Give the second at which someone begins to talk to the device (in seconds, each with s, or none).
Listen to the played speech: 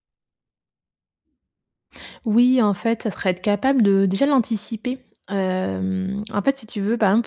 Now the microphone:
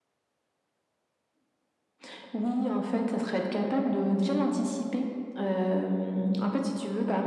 none